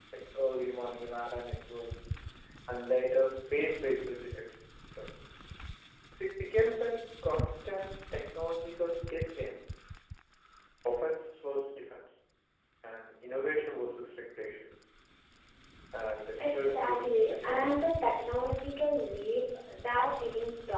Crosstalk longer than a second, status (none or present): present